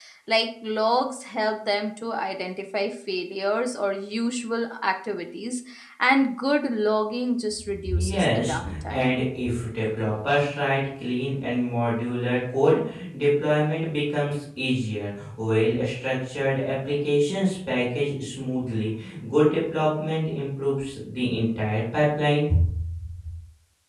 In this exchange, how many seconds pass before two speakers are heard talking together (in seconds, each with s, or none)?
7.9 s